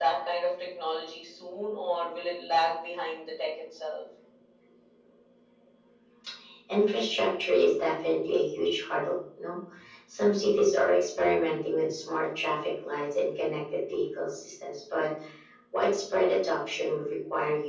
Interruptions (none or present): none